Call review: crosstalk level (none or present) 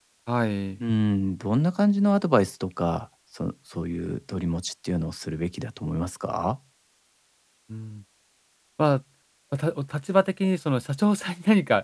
none